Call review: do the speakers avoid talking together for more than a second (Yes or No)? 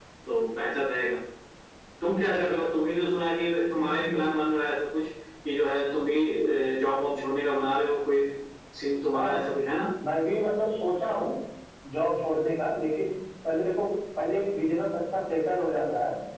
Yes